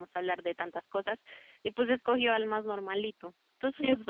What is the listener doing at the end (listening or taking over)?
taking over